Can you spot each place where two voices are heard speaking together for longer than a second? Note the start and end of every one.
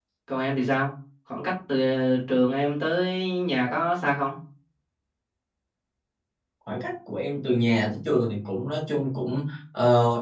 none

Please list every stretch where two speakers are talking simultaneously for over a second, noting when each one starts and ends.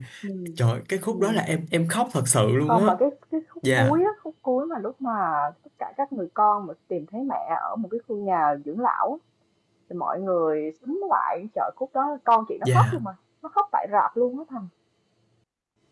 none

